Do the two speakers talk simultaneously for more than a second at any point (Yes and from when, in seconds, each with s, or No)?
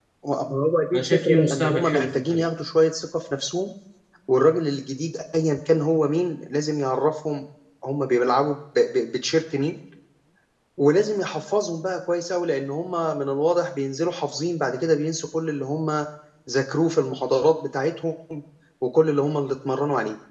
Yes, from 0.9 s